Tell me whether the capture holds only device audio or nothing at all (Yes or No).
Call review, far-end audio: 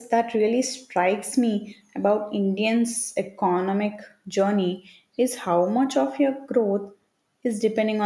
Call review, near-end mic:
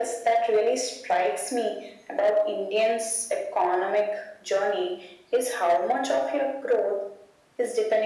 Yes